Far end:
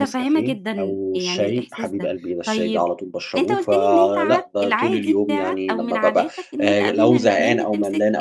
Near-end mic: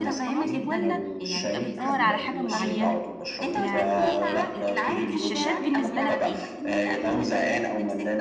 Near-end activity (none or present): present